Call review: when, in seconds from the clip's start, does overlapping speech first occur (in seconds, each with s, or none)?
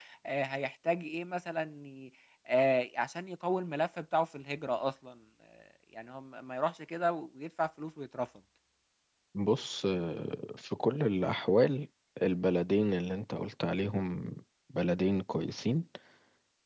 none